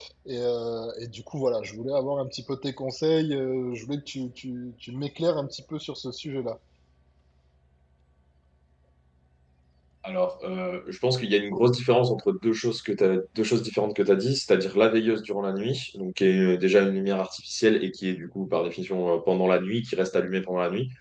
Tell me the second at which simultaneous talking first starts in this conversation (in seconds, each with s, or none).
none